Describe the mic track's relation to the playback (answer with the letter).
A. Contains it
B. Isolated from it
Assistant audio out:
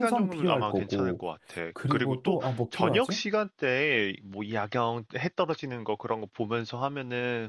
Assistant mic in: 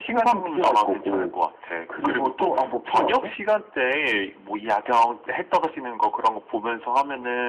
A